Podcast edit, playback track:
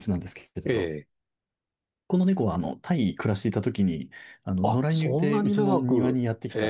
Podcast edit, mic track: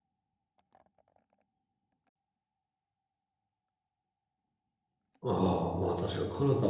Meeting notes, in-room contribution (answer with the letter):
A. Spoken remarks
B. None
A